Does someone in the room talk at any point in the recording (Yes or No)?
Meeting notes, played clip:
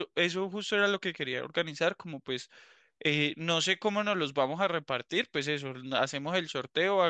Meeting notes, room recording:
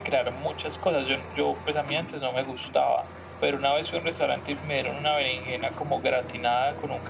Yes